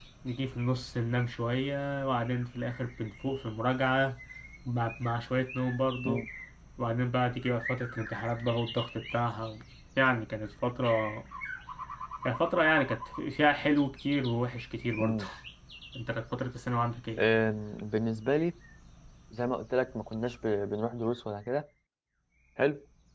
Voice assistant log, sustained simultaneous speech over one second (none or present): none